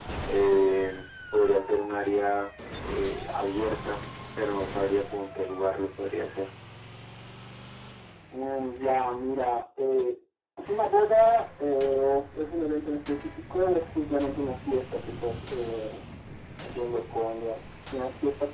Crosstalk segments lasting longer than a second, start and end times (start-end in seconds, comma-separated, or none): none